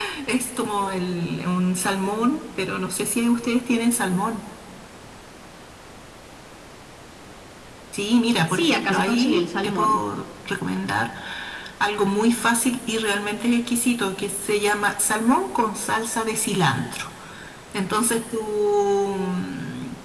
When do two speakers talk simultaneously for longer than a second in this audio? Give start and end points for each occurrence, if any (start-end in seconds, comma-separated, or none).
8.5-10.0